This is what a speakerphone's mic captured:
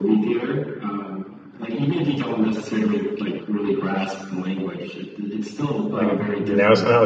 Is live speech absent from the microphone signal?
No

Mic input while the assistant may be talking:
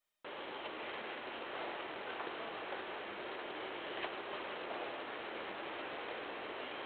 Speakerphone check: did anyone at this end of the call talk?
No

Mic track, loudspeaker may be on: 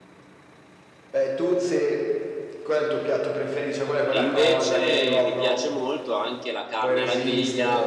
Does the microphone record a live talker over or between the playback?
Yes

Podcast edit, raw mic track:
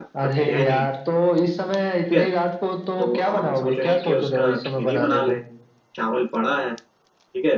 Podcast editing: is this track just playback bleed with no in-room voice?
No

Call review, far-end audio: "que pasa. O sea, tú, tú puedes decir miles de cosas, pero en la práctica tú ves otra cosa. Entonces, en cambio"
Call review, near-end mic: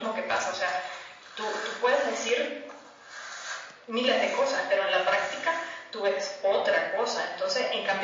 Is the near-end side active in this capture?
No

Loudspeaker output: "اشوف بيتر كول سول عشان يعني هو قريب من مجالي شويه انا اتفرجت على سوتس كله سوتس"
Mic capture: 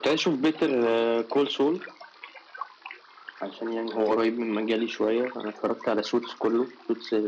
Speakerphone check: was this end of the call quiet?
Yes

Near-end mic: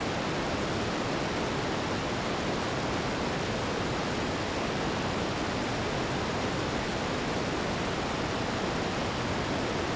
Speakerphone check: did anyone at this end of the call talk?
No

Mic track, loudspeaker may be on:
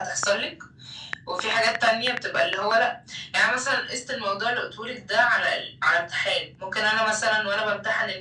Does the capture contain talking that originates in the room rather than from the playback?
No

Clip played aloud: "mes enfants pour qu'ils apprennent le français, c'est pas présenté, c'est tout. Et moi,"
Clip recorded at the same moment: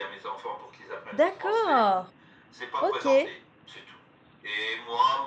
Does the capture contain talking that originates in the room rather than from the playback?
Yes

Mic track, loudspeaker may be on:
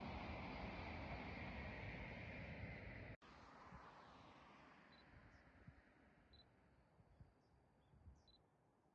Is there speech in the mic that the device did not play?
No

